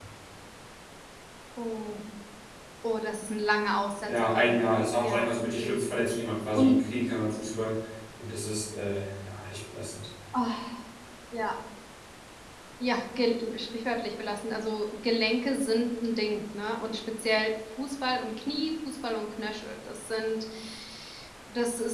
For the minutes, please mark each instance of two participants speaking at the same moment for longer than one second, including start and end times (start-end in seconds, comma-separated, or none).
4.1-5.8